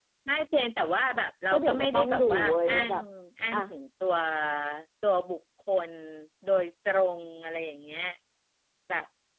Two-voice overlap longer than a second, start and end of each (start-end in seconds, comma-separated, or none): 1.5-2.9